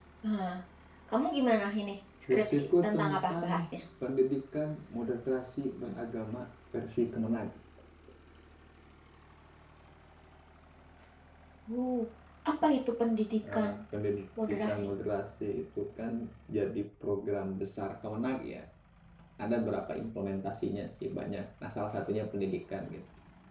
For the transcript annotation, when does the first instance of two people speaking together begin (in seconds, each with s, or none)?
2.3 s